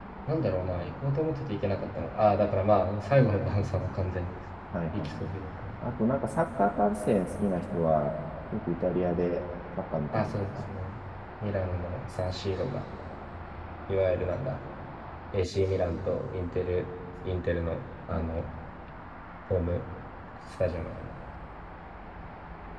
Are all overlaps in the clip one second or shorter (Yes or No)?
Yes